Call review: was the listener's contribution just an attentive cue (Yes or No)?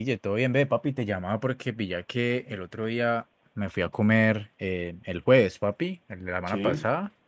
Yes